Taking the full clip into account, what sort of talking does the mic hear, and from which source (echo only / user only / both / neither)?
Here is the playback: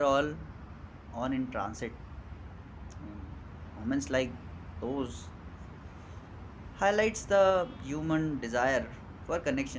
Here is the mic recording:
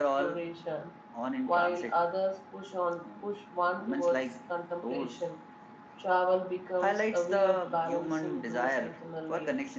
both